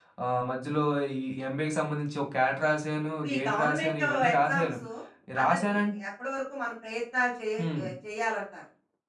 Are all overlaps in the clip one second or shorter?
No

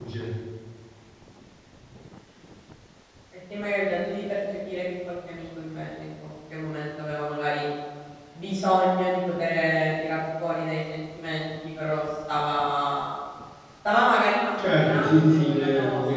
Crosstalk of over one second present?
Yes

